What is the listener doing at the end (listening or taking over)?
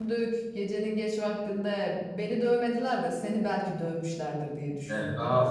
taking over